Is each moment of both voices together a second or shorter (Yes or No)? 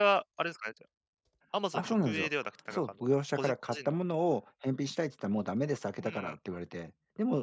No